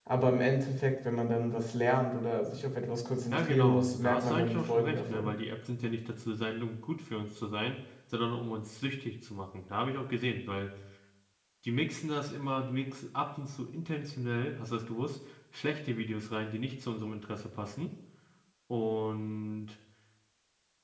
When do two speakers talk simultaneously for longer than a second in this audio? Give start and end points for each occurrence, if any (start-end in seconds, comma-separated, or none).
3.3-5.3